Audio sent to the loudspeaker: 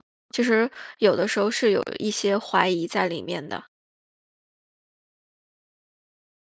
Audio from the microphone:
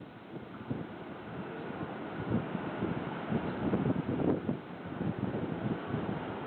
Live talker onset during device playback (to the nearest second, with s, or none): none